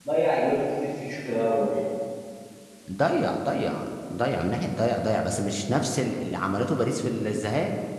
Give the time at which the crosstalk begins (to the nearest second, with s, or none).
none